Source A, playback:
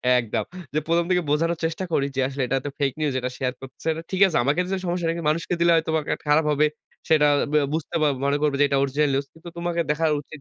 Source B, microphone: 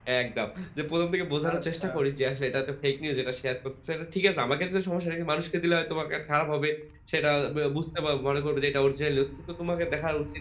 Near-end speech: present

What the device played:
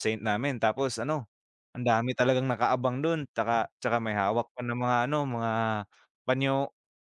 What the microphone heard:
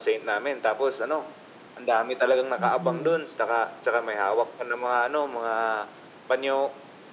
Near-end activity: present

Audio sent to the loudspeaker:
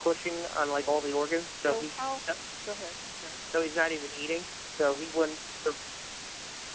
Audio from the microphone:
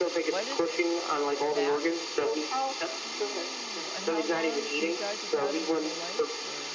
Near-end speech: present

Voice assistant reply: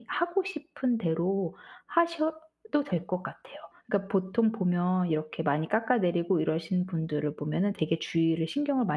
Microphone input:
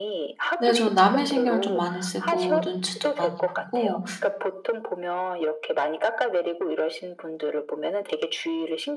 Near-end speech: present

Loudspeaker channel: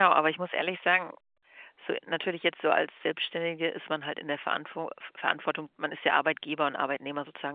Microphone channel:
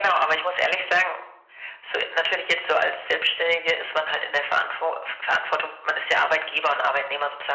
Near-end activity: none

